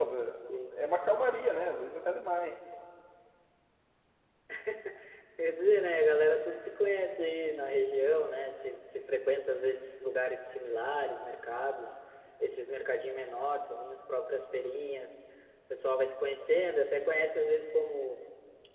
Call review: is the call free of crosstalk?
Yes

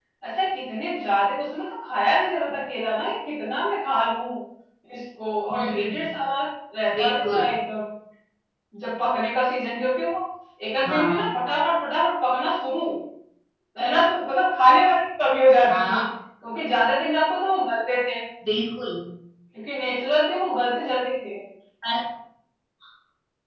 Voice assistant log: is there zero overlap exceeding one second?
Yes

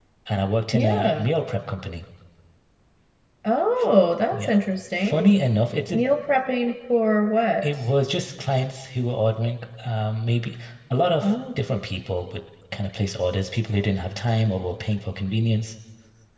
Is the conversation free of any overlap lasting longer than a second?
Yes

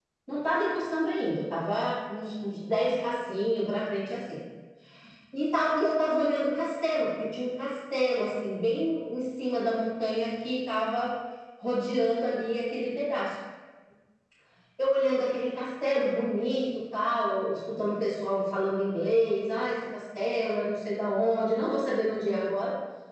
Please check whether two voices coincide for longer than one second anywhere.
No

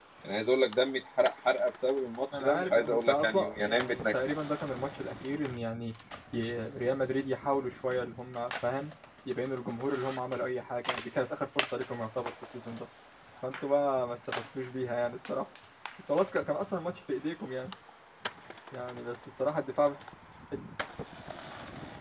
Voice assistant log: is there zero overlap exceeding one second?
No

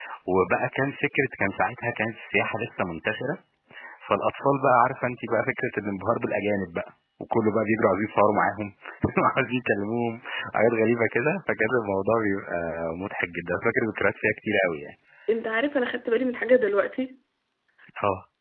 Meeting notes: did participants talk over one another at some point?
No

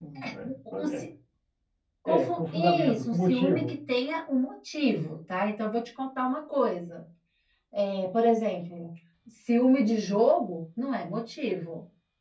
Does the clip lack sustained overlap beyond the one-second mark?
No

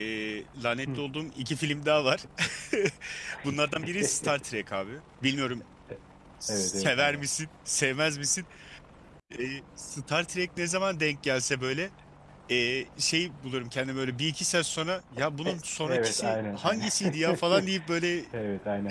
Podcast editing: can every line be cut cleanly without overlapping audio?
No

